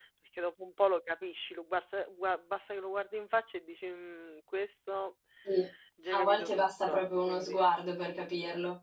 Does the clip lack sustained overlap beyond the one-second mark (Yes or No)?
No